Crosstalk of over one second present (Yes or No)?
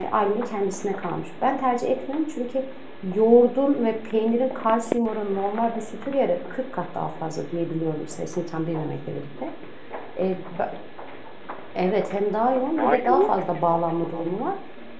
Yes